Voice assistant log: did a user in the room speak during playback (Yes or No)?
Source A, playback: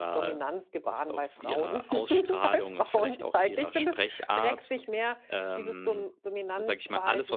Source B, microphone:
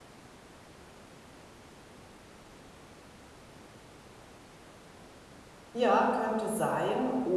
Yes